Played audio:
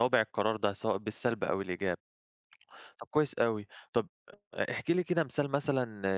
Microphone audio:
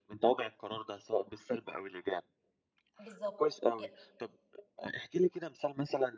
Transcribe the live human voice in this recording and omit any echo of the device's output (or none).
بالضبط. ي